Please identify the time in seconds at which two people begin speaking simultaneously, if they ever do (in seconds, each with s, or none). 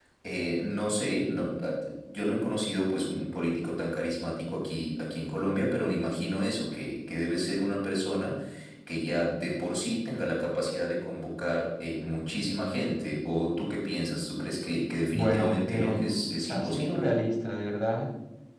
15.1 s